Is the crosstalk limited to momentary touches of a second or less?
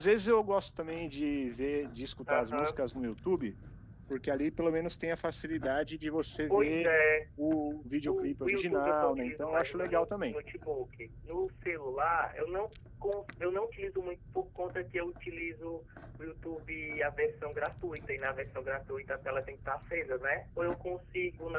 No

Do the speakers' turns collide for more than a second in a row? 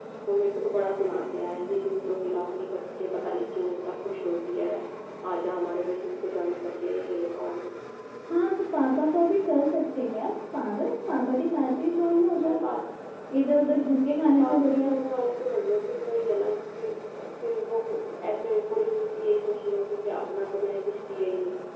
No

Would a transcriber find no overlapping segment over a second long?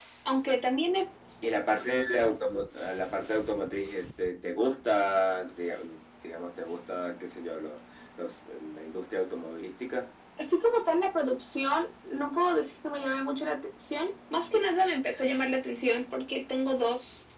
Yes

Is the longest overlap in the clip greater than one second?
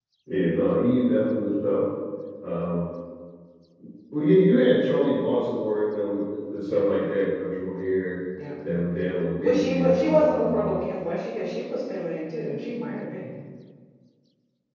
Yes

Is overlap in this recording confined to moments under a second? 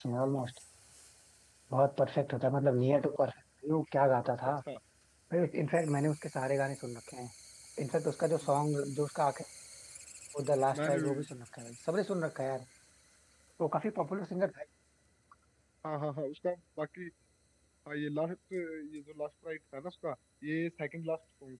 Yes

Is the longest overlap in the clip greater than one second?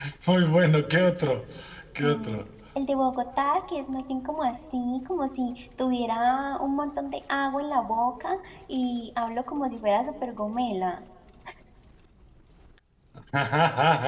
No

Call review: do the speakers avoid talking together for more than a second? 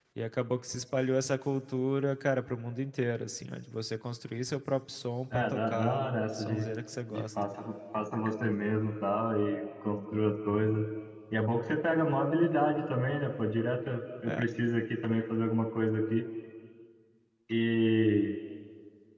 No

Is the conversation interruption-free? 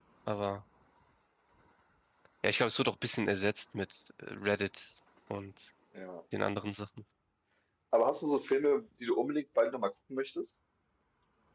Yes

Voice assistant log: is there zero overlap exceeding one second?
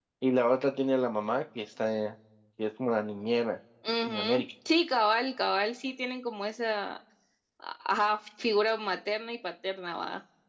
Yes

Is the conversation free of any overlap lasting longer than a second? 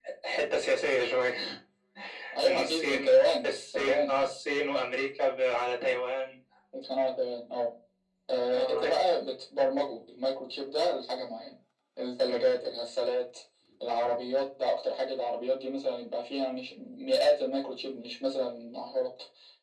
No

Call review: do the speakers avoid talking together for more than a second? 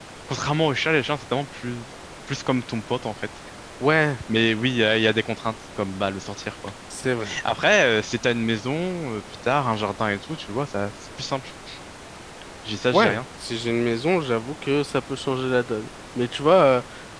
Yes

